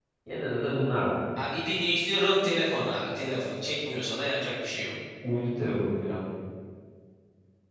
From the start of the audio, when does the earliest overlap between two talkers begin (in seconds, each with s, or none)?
none